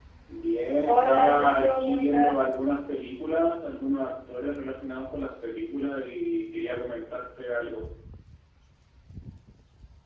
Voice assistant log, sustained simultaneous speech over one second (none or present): present